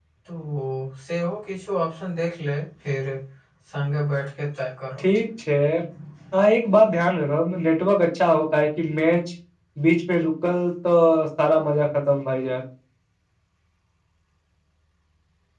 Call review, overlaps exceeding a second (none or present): none